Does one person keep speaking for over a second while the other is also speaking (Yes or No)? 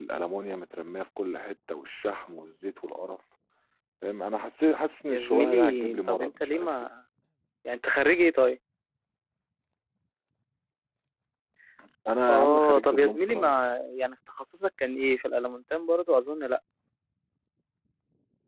Yes